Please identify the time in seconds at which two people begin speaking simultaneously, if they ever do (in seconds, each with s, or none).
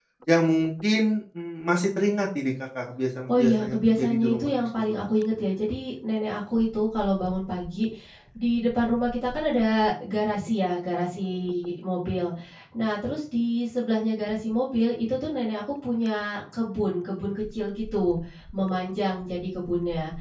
3.3 s